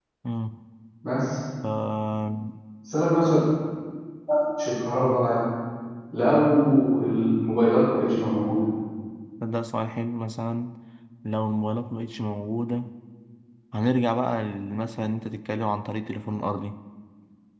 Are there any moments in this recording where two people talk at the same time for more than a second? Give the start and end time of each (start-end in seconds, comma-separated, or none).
none